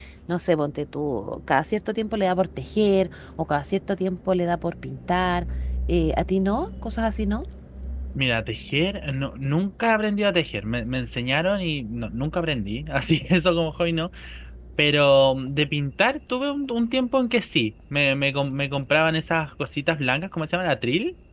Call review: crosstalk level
none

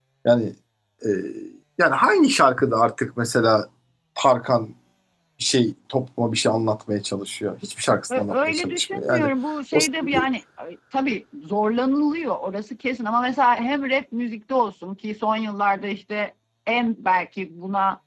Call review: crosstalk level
present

